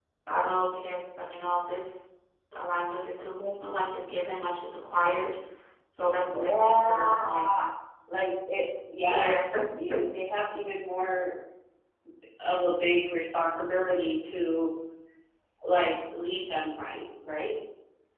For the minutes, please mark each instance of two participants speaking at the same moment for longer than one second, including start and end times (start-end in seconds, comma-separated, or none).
6.1-7.6